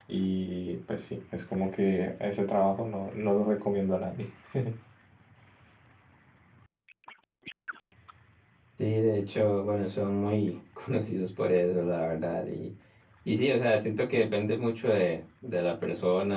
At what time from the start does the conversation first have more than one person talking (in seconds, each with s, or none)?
none